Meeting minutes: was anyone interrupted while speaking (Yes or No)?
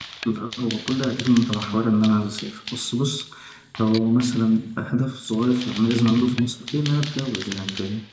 No